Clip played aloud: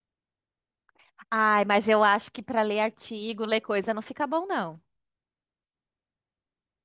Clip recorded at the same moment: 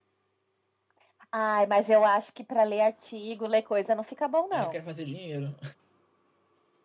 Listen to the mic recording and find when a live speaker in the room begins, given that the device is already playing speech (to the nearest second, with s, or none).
4 s